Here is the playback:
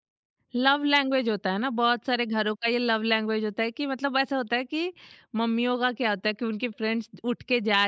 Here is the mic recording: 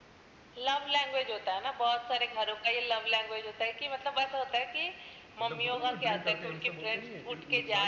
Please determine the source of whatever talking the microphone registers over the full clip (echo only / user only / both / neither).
both